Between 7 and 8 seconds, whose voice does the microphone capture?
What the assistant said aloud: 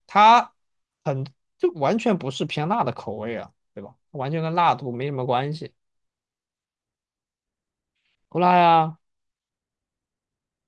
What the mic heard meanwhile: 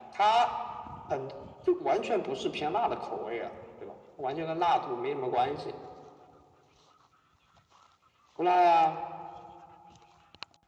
neither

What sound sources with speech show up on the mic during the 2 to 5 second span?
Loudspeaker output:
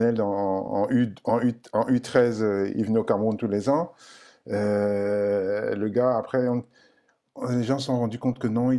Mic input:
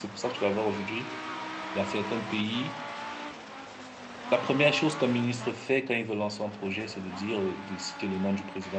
user only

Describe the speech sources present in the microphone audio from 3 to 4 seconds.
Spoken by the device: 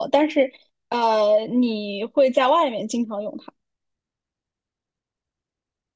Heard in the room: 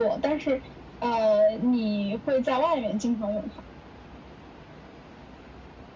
echo only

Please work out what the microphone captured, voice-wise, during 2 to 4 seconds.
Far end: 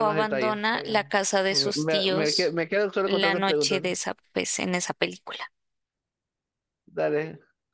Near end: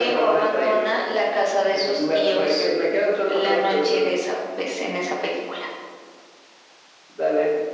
echo only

